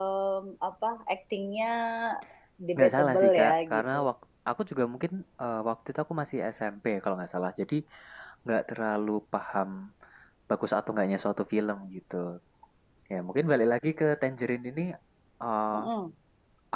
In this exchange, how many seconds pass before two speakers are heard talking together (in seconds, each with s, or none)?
2.8 s